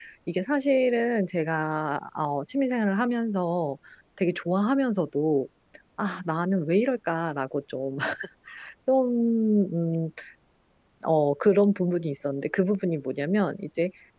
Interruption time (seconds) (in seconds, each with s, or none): none